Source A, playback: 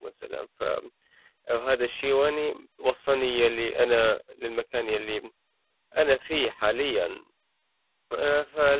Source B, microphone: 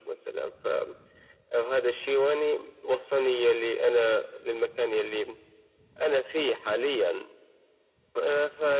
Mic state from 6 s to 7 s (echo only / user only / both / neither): echo only